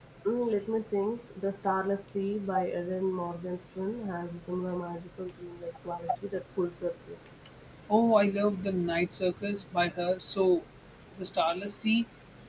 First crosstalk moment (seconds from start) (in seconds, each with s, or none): none